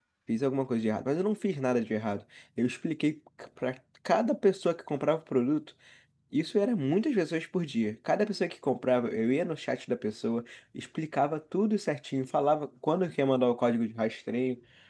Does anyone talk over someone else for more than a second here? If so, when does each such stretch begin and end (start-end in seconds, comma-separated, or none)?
none